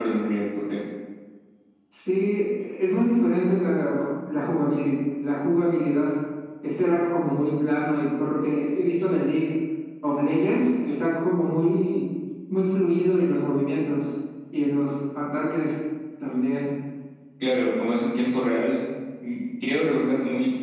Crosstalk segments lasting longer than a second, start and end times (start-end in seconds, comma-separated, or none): none